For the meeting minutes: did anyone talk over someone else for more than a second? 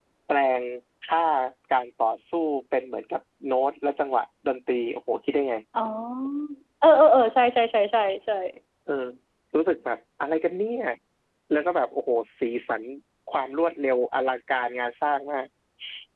No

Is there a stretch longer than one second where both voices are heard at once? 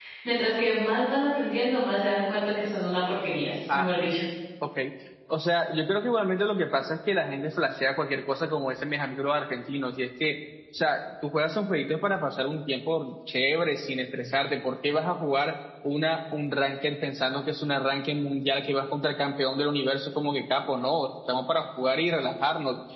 No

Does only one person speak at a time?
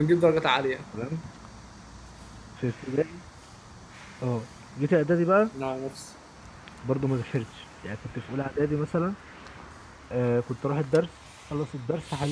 Yes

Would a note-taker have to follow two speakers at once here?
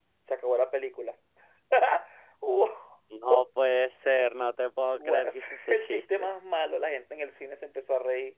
Yes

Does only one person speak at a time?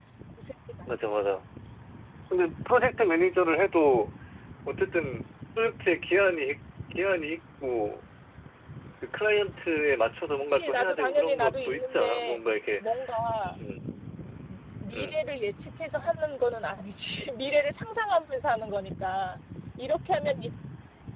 No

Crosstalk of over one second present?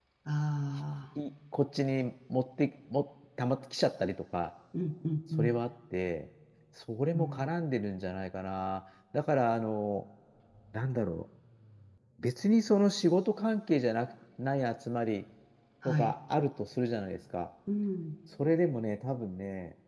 No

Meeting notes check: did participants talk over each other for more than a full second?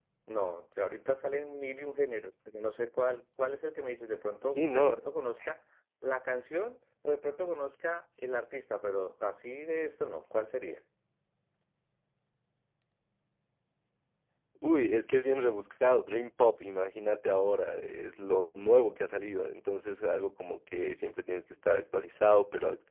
No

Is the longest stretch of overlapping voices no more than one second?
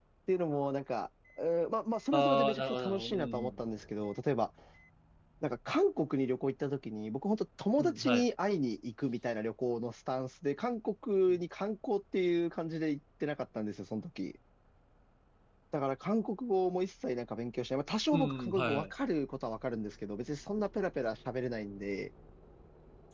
No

